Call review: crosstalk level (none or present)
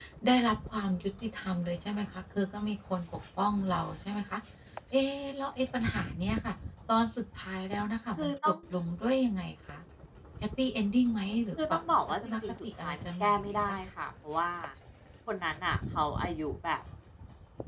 present